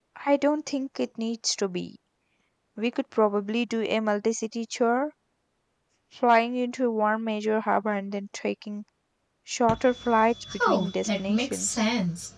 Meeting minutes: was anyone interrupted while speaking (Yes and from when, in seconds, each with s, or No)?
Yes, from 10.4 s